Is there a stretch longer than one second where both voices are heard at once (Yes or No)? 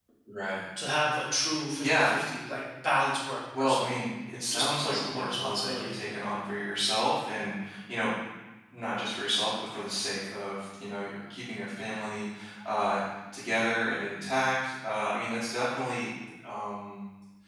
Yes